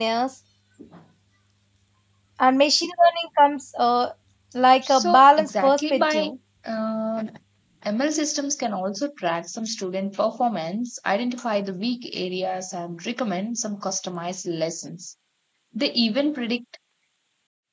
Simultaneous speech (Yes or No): Yes